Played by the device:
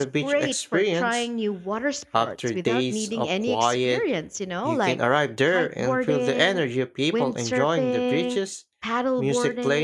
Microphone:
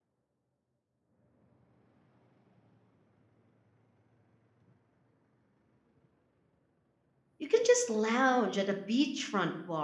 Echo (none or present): none